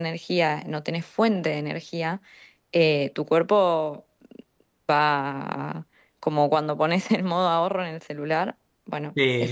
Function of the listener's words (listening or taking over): taking over